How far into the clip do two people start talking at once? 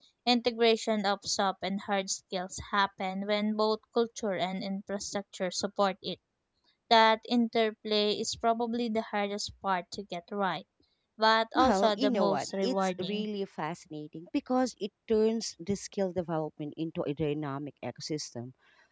11.6 s

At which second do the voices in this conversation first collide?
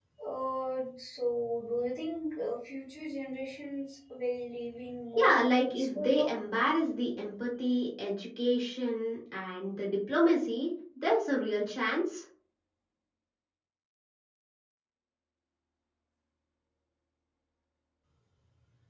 5.2 s

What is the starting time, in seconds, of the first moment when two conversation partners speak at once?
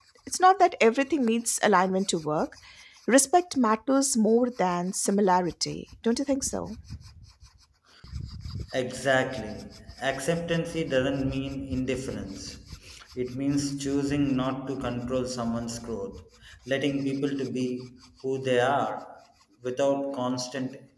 none

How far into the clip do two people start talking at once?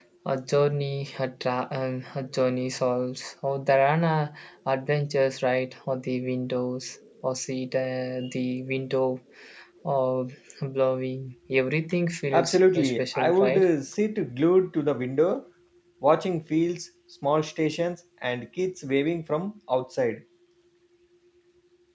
12.3 s

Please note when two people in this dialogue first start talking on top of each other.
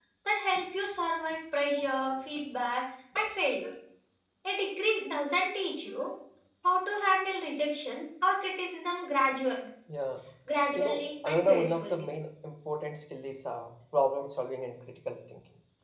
10.8 s

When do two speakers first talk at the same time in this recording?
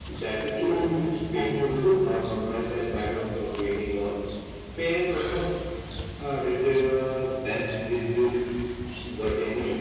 0.6 s

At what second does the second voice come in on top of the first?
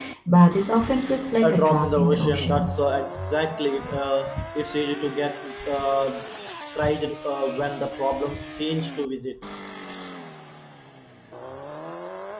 1.4 s

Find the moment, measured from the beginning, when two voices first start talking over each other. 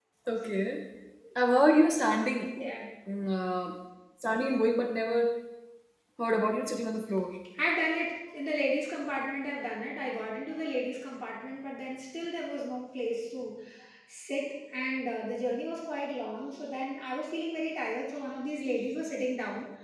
none

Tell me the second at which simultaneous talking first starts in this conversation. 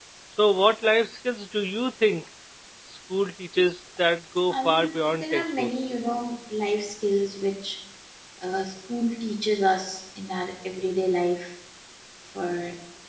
4.5 s

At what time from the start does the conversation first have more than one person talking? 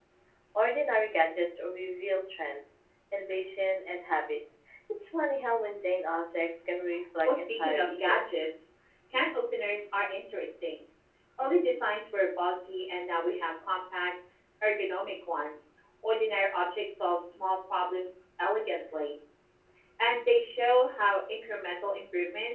7.2 s

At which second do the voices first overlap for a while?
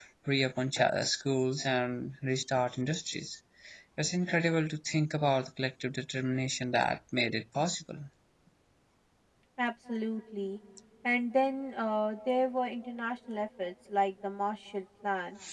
none

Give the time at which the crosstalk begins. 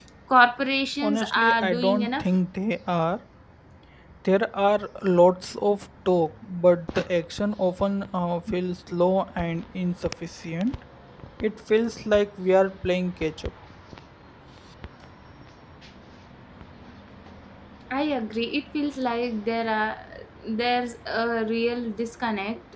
1.0 s

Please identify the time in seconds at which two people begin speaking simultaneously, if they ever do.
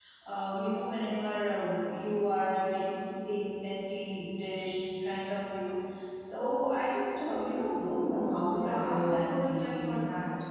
8.6 s

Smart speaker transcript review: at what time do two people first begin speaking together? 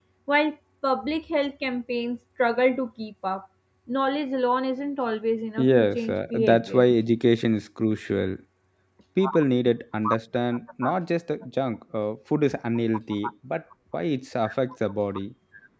5.6 s

